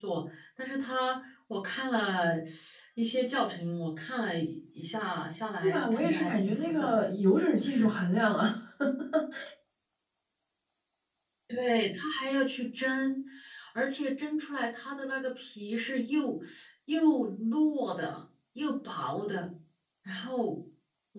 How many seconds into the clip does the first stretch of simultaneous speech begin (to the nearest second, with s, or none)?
6 s